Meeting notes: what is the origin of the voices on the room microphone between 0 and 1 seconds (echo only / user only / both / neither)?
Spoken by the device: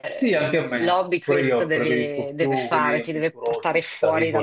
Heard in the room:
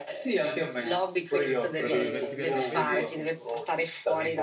echo only